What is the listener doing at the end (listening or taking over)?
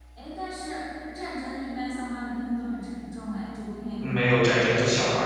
taking over